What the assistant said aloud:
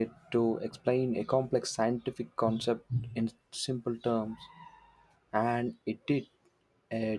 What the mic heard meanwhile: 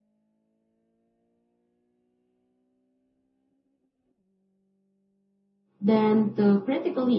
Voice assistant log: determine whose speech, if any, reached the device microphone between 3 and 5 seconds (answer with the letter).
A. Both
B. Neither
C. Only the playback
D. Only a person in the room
B